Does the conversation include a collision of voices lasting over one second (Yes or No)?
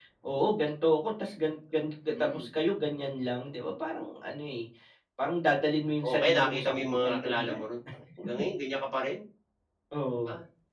Yes